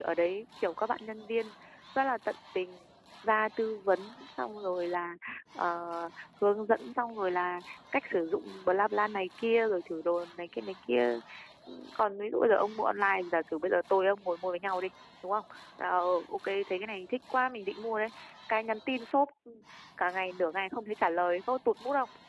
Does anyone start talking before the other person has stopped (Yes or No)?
No